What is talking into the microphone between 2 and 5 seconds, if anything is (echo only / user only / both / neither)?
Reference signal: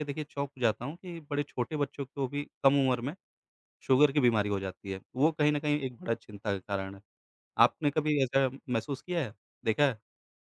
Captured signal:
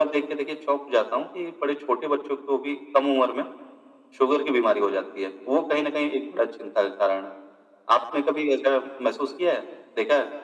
echo only